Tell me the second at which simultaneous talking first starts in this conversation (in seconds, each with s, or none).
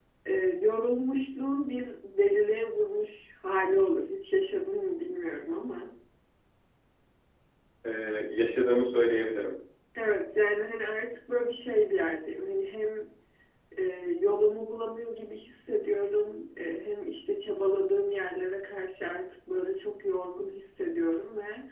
none